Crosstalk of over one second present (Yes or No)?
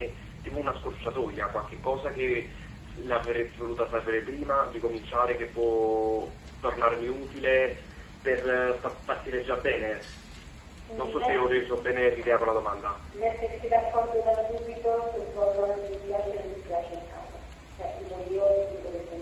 No